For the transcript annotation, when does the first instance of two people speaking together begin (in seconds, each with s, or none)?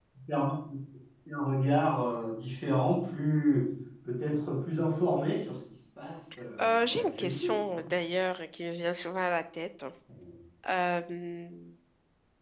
6.6 s